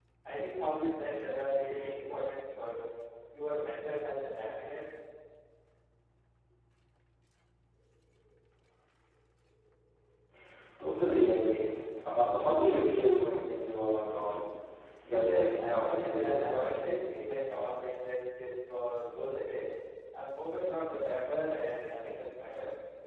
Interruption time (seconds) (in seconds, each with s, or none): 15.1 s